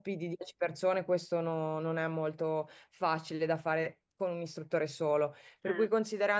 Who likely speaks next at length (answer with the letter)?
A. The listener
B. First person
B